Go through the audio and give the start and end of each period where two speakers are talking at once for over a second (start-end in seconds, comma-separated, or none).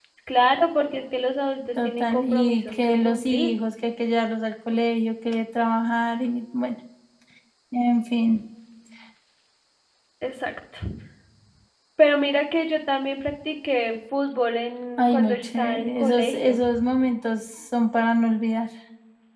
1.8-3.5, 15.0-16.6